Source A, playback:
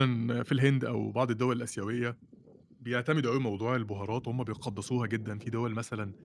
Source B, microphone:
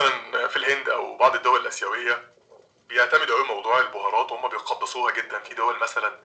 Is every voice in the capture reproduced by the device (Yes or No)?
Yes